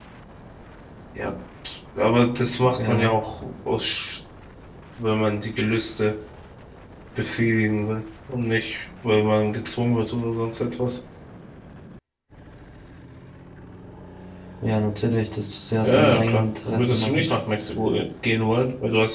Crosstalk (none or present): present